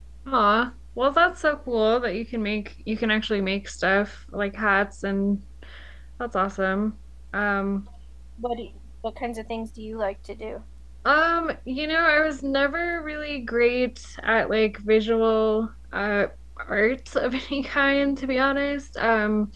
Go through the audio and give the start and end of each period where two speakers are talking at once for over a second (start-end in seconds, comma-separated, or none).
none